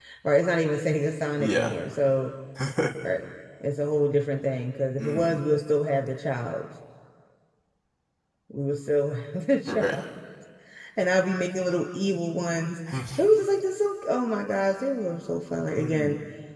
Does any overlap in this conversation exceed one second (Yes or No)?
No